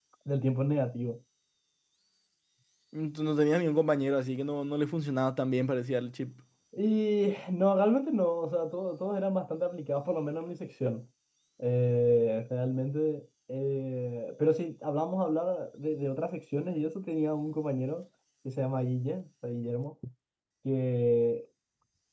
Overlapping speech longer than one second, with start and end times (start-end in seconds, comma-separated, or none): none